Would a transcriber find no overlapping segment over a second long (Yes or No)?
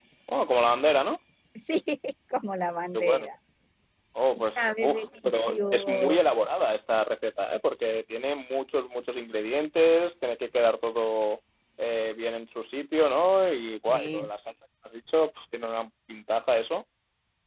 No